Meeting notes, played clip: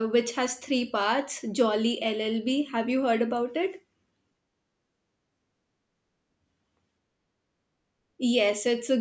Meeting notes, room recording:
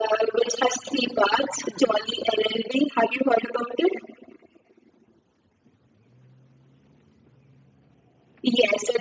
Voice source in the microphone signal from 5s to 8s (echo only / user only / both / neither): neither